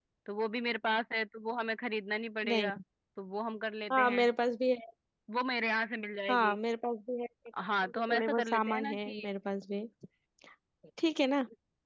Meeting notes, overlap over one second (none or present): present